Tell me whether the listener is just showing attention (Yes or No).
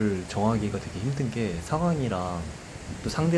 Yes